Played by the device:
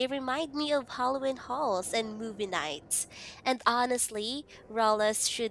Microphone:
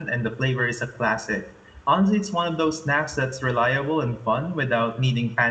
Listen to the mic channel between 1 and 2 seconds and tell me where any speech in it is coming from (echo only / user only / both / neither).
user only